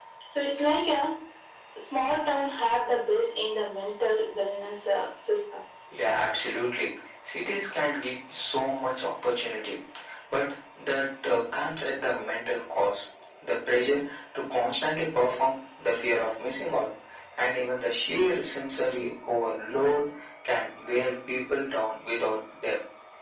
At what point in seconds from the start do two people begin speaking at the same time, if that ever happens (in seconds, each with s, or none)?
none